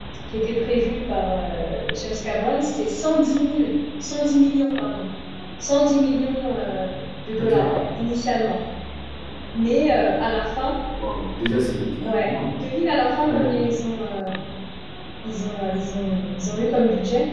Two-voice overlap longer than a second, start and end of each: none

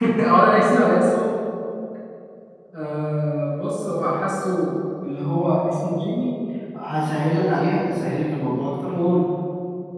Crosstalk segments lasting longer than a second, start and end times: none

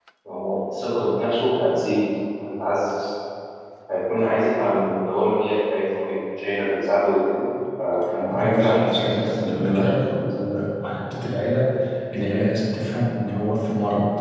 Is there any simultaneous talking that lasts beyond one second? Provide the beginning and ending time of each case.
8.3-10.0

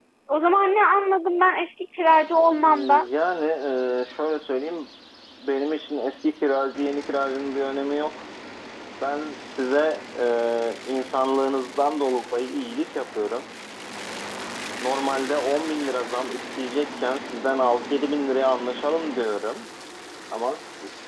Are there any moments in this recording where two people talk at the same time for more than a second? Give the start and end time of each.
none

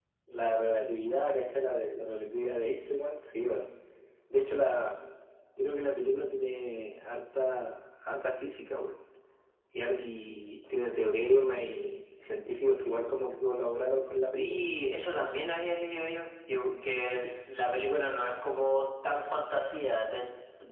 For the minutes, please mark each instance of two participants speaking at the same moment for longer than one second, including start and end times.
none

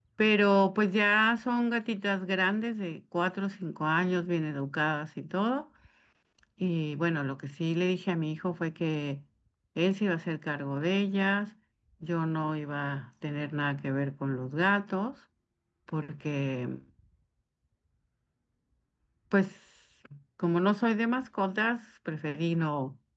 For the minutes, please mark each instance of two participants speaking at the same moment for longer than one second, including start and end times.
none

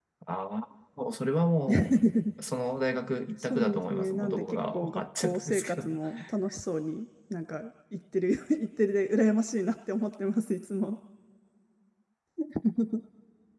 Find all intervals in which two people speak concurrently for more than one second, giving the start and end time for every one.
3.4-5.9

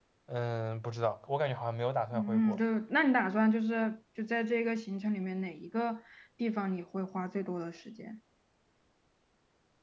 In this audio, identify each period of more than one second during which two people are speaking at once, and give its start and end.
none

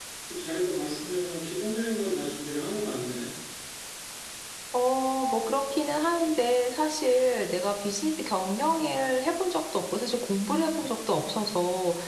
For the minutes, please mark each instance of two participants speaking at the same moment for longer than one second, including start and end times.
none

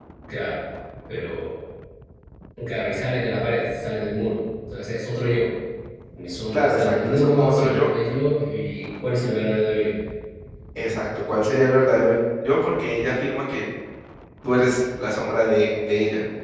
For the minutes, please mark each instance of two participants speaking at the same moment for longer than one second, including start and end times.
6.5-7.9

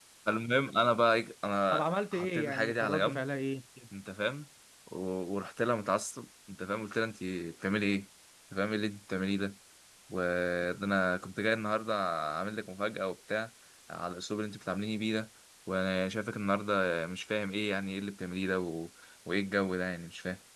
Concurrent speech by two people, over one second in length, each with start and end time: 1.7-3.2

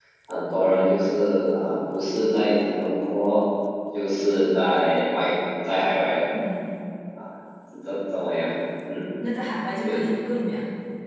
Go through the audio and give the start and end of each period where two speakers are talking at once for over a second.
none

